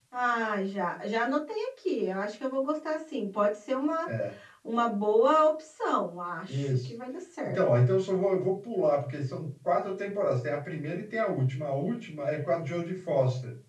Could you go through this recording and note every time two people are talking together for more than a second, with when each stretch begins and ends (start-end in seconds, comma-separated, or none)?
none